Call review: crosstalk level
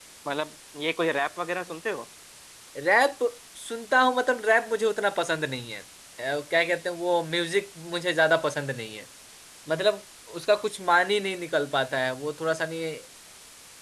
none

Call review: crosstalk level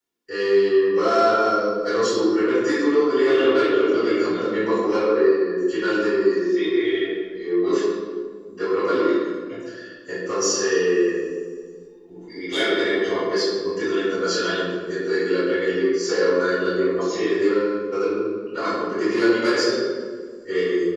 present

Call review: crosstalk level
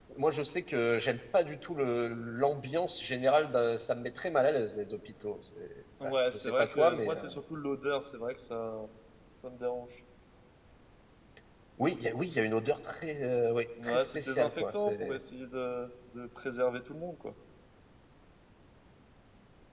present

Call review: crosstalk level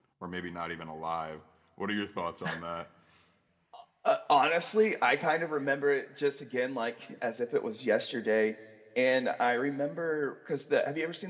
none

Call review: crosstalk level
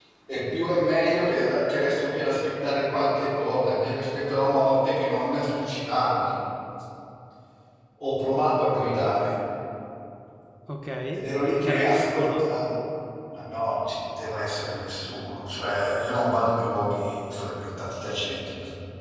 present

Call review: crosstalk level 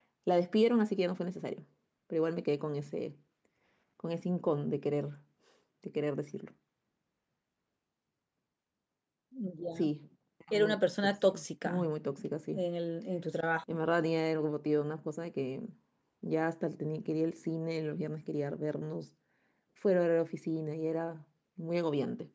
present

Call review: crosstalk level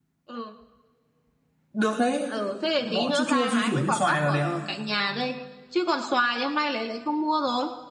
present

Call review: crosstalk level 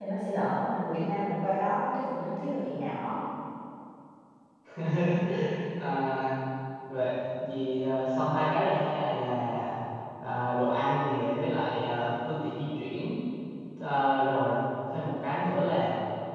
none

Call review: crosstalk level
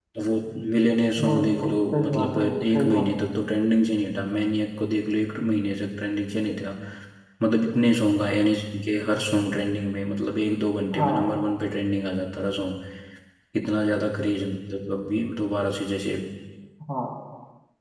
present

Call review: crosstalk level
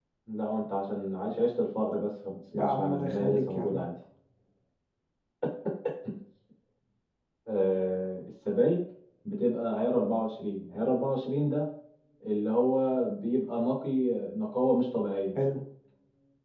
present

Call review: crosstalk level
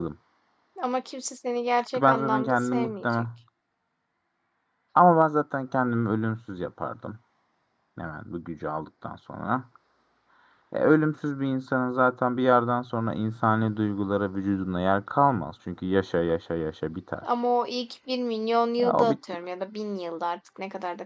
present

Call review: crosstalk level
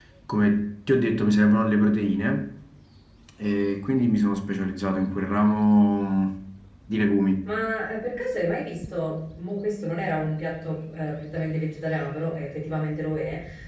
none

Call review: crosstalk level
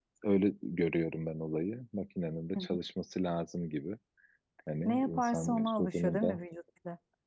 present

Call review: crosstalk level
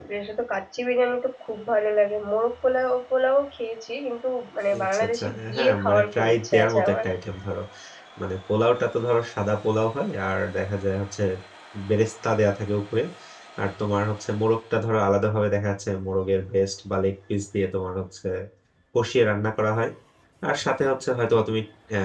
present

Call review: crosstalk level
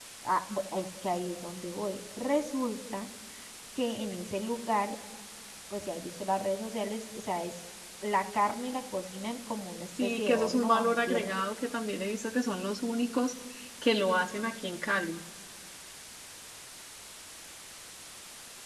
present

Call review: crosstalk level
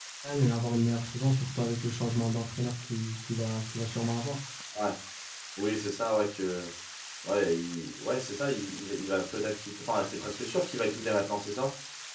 none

